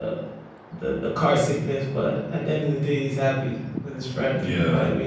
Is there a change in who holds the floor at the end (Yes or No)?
Yes